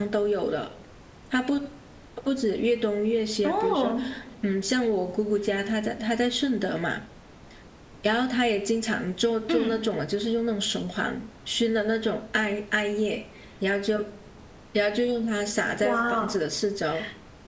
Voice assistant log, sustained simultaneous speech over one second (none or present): none